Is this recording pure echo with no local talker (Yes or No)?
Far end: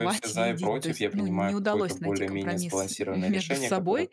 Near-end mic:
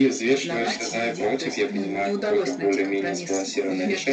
Yes